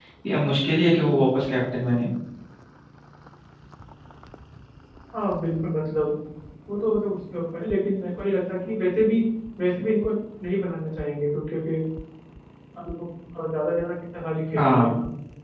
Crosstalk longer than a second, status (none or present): none